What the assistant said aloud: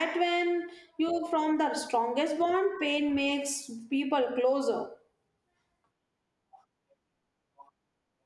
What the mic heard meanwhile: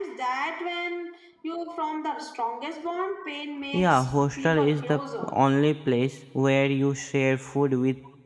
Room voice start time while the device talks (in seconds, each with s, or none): 3.7 s